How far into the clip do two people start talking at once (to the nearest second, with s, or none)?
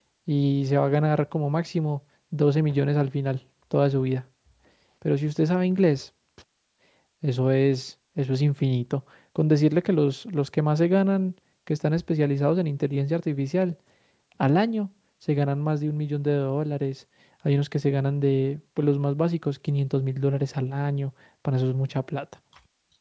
none